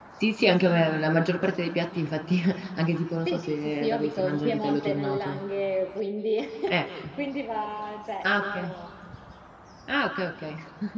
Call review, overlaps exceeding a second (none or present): present